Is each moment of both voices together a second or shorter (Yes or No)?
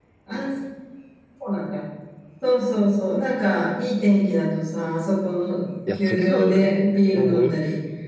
No